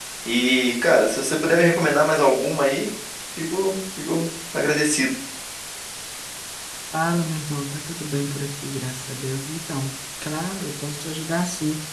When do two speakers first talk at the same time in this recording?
none

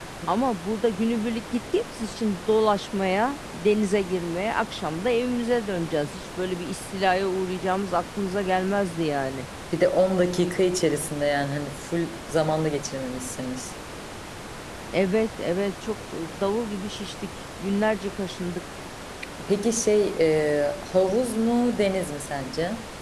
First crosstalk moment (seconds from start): none

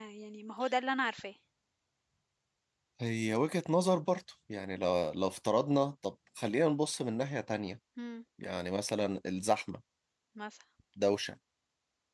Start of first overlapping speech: none

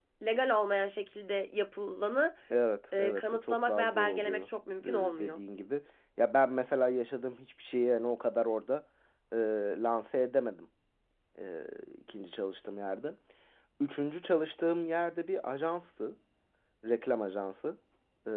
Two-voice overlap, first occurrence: 3 s

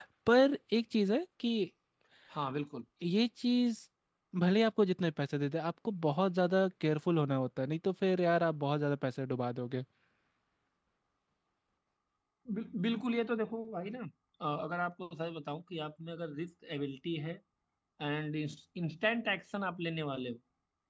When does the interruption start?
none

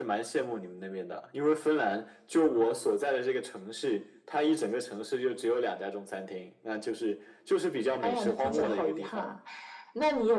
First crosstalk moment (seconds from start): 8 s

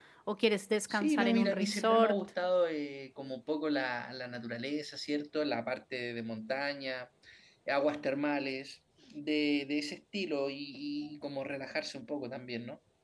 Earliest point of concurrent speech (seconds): 1 s

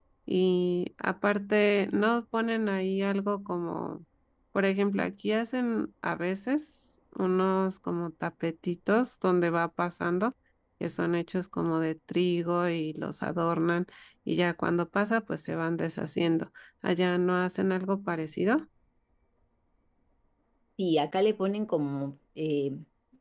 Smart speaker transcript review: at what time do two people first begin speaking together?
none

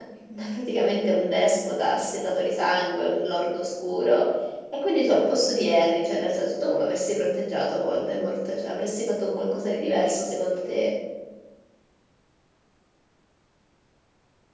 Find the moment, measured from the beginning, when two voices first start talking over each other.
none

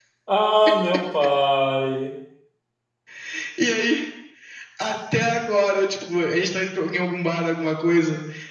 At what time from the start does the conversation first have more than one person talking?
none

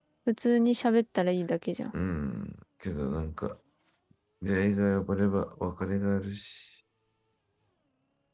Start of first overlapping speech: none

